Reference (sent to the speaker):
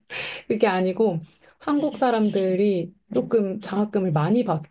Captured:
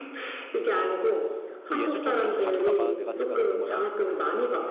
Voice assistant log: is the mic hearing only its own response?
No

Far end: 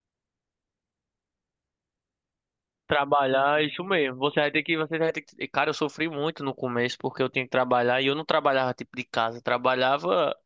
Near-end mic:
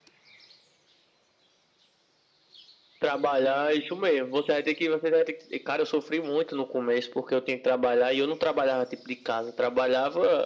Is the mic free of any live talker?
Yes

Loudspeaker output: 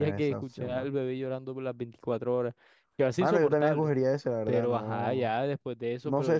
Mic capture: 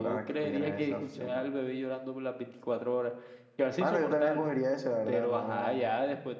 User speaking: No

